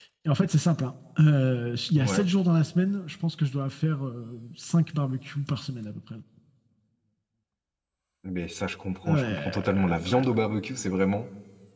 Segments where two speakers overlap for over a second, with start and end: 9.1-10.4

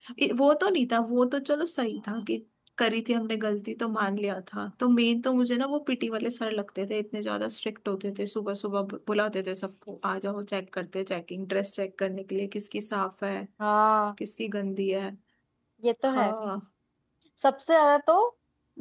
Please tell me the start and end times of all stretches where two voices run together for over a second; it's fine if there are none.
none

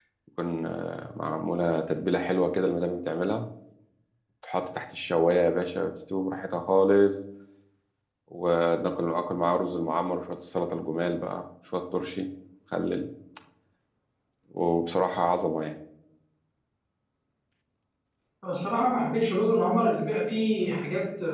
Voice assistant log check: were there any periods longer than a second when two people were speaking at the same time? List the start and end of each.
none

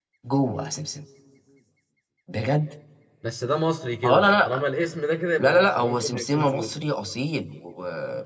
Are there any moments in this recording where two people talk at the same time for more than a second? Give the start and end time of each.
5.4-6.8

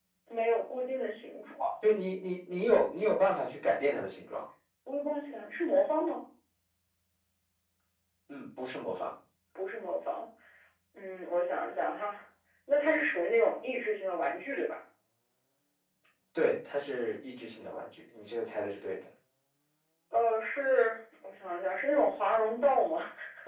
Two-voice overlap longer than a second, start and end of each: none

